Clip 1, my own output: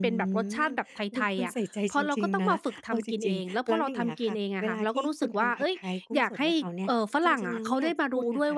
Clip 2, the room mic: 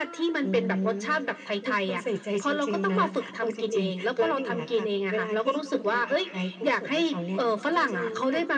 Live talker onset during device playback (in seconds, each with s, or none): none